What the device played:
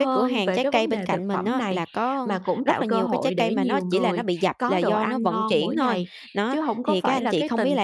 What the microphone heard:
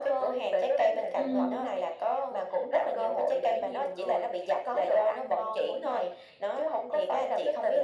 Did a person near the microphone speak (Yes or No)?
Yes